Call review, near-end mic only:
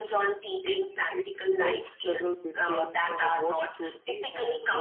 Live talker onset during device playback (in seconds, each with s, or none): 0.6 s